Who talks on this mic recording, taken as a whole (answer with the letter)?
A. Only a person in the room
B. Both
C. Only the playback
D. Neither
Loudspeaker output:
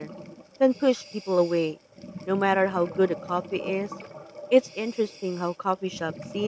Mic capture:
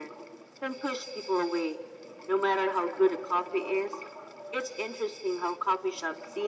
C